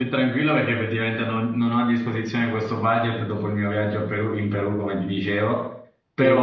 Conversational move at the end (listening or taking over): listening